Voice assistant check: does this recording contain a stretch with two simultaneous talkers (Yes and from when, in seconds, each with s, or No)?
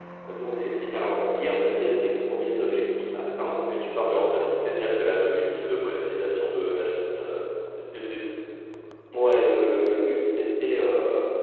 No